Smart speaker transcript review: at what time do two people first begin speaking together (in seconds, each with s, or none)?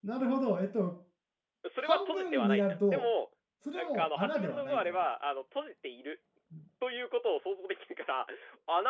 1.8 s